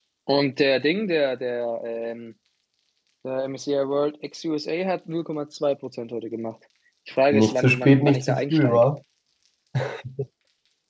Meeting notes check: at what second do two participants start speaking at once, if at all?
7.3 s

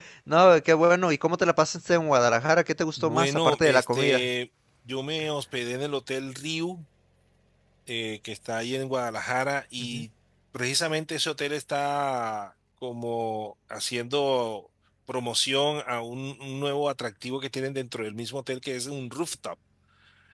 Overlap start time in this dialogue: 3.0 s

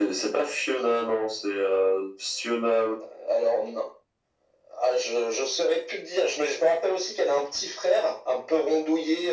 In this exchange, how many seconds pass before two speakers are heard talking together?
none

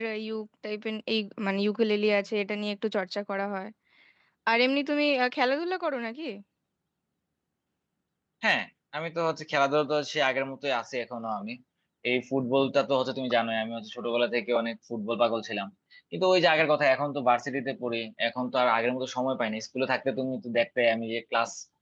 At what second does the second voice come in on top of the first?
none

